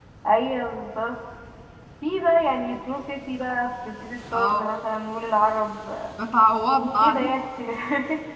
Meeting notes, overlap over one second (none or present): none